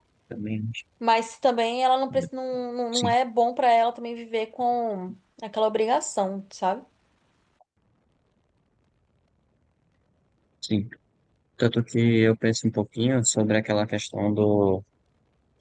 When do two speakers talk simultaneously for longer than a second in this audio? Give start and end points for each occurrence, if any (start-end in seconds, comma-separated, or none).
none